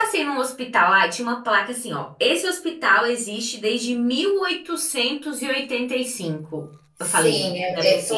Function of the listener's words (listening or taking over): taking over